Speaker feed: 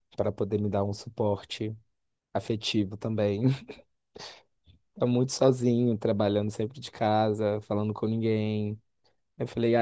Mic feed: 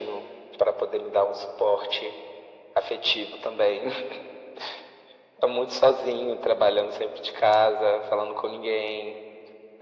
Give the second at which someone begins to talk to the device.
none

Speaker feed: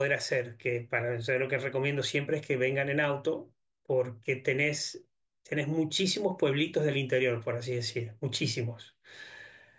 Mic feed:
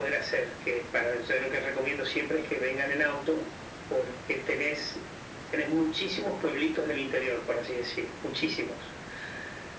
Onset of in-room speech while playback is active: none

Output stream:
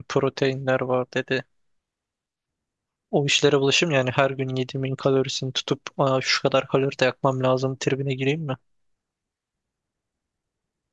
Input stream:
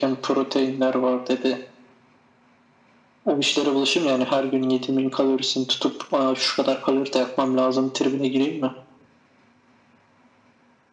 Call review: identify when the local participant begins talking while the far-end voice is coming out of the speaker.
none

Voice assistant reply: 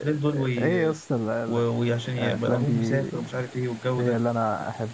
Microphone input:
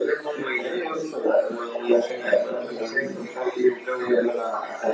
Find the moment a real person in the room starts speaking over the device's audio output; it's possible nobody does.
none

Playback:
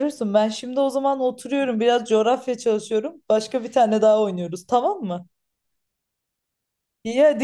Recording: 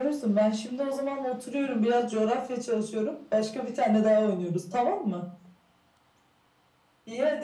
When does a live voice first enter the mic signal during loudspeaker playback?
none

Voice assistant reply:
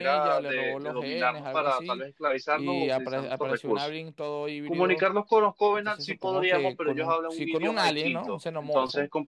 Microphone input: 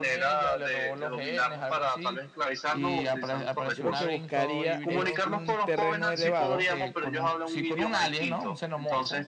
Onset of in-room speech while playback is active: 3.6 s

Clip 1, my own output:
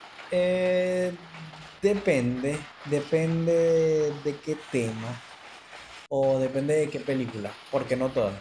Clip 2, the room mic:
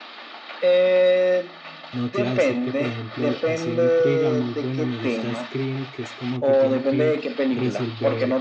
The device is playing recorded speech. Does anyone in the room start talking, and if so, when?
1.9 s

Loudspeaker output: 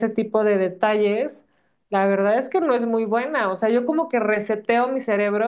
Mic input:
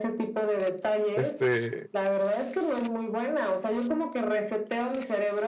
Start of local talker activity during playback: 1.1 s

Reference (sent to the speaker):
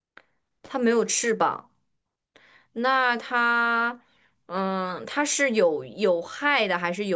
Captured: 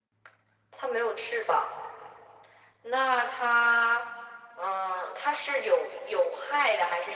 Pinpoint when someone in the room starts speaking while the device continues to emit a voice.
none

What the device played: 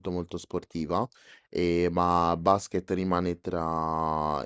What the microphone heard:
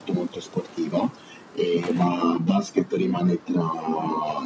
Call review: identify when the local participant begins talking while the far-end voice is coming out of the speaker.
none

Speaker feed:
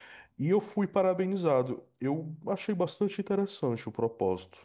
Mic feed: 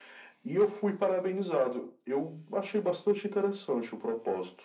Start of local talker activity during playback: none

